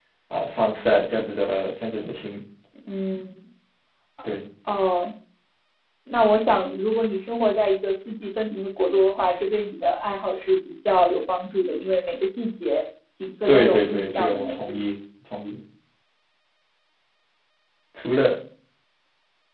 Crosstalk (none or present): present